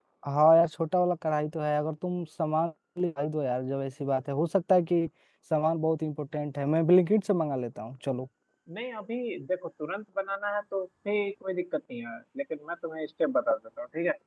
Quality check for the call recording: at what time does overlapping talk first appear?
none

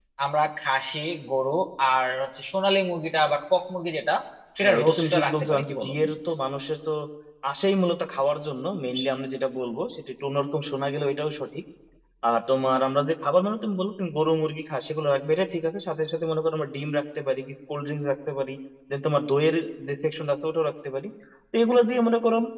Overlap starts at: 4.6 s

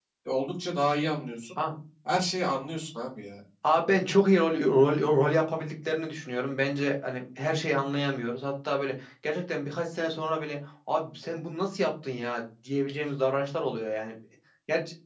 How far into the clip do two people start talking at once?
none

